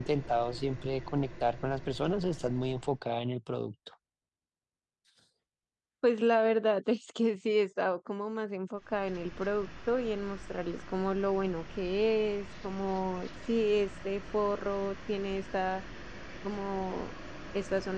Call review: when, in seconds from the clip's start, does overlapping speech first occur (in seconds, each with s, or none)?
none